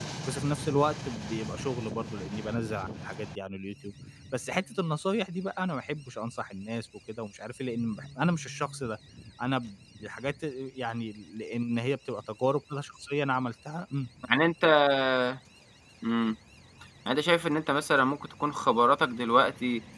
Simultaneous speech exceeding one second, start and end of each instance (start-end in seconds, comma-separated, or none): none